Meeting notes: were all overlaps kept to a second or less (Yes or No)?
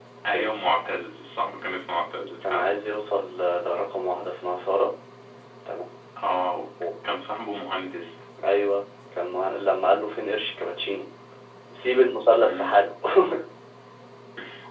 Yes